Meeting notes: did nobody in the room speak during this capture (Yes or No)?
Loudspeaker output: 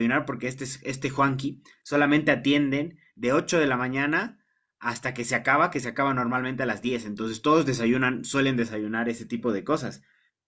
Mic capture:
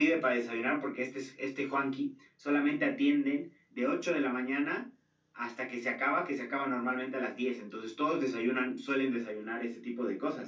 Yes